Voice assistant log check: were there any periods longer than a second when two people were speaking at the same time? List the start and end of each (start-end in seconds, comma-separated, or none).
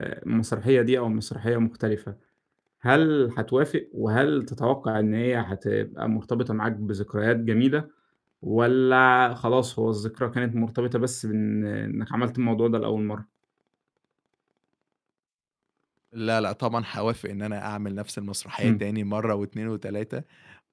none